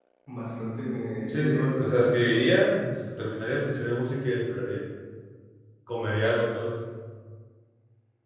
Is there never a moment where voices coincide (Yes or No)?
No